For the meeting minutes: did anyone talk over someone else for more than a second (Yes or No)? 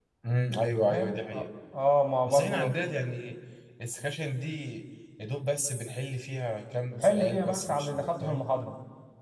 Yes